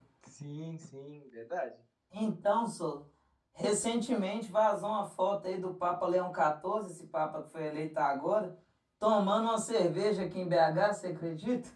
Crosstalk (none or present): none